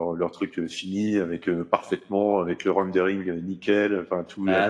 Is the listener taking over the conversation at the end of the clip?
No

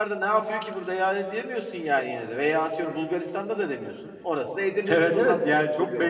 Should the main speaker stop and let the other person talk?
Yes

